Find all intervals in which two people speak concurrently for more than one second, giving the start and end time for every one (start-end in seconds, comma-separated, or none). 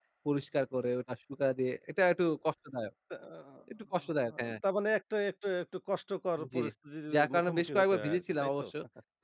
7.1-8.7